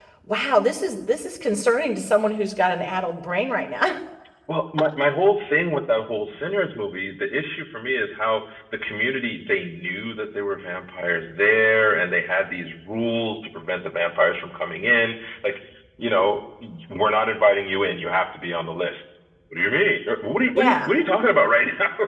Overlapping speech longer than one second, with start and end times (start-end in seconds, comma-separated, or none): none